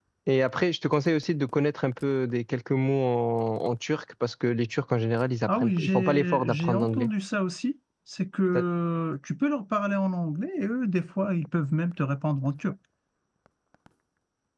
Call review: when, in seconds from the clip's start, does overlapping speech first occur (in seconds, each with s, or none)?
5.5 s